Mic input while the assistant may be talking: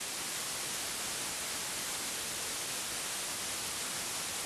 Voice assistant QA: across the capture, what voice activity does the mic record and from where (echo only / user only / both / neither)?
neither